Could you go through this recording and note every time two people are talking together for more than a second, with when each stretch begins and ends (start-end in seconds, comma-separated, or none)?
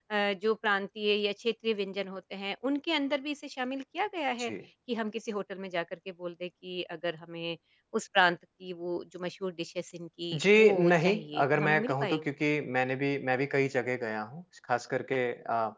10.3-12.2